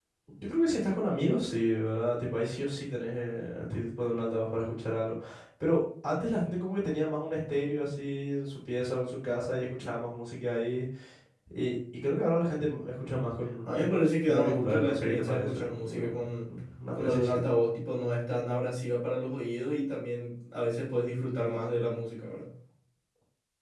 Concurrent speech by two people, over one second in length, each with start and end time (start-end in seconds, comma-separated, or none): 14.3-16.0